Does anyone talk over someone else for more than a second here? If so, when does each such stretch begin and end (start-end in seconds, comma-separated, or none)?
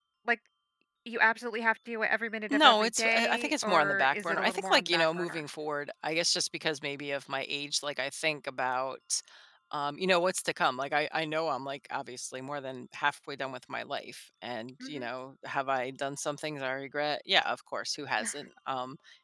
2.5-5.4